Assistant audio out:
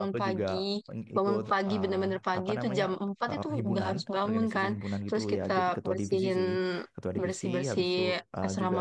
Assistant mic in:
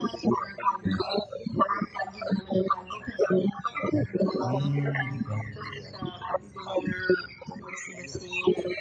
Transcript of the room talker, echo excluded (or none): Hmm, ya